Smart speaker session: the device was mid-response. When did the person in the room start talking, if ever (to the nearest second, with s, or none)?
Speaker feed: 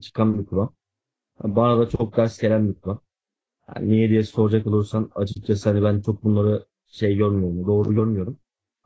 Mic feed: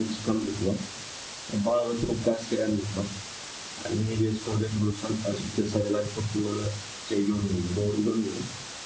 none